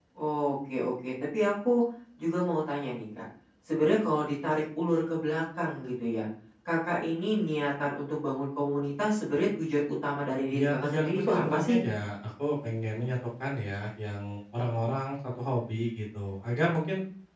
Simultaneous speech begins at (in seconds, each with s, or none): 10.5 s